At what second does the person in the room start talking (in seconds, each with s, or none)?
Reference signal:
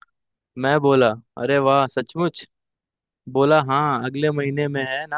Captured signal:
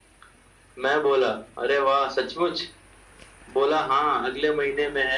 none